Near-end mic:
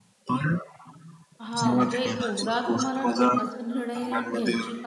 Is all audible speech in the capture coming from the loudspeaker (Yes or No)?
No